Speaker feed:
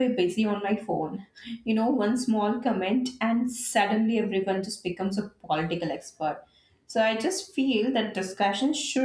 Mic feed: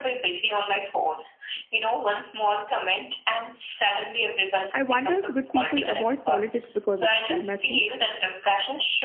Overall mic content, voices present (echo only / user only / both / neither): both